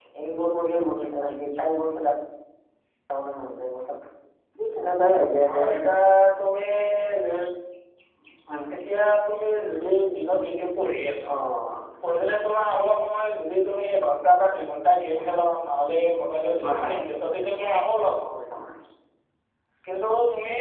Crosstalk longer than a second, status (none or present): none